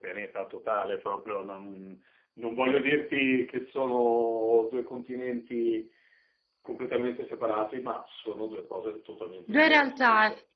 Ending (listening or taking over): taking over